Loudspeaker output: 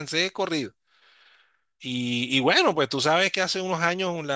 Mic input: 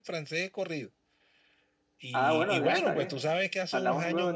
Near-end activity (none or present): present